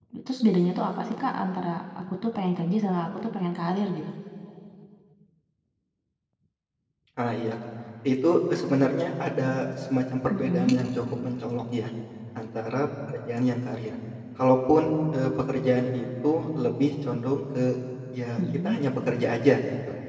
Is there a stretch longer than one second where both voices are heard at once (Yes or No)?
No